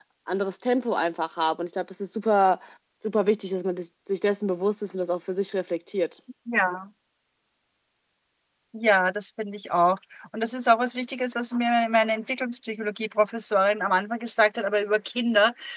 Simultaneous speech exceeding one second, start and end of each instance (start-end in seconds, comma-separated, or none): none